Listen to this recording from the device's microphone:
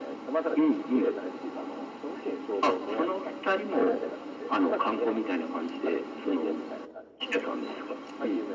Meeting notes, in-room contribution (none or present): none